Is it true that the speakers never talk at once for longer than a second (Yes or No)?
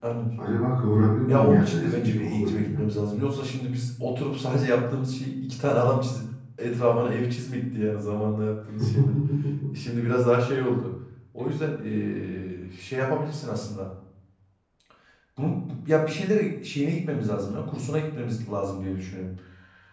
No